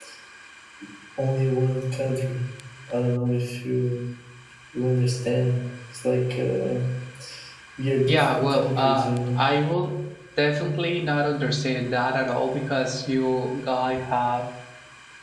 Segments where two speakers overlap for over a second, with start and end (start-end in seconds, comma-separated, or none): 8.1-9.4